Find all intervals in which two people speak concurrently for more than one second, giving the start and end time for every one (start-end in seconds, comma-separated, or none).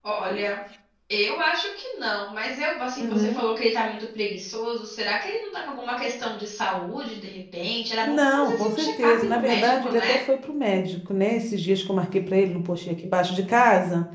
8.0-10.1